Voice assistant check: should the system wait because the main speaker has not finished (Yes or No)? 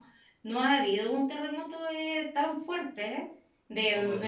Yes